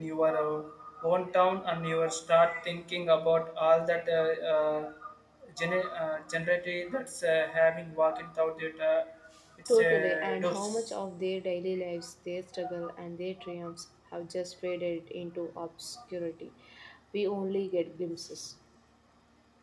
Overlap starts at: 9.7 s

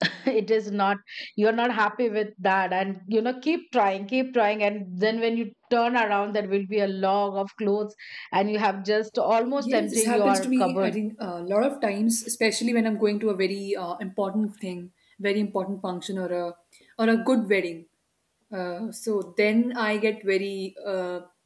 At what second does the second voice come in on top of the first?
9.6 s

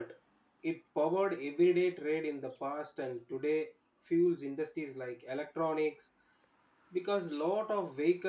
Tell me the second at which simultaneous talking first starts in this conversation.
none

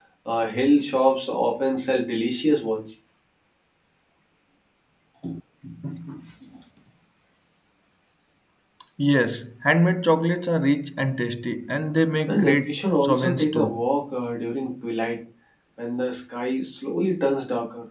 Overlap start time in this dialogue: 12.3 s

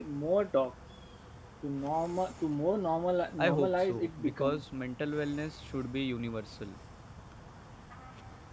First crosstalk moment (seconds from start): 3.4 s

